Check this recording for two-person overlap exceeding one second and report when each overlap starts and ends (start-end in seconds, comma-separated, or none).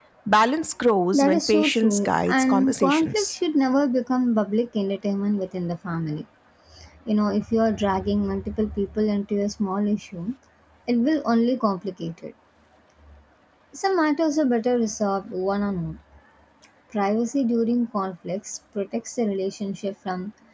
1.1-3.4